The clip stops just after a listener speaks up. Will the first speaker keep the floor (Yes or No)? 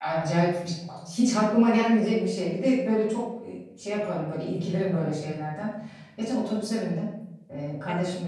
Yes